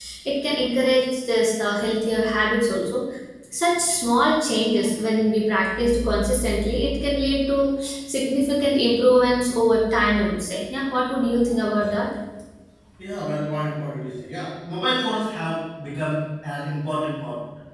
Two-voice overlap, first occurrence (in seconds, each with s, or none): none